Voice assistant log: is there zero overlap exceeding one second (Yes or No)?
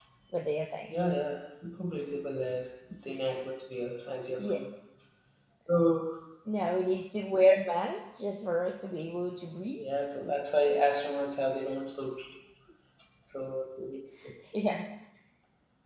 Yes